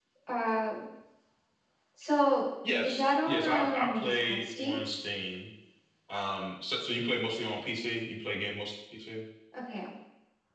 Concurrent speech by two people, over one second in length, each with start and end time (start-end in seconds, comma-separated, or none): 2.8-4.8